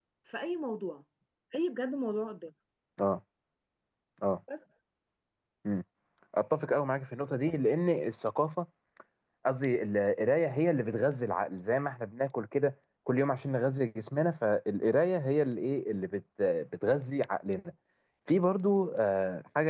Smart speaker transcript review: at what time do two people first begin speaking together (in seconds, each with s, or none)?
none